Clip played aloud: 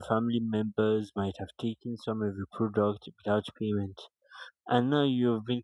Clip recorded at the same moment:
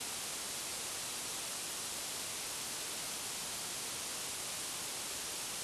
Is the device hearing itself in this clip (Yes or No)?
No